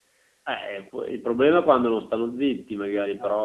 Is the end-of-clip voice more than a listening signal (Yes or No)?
No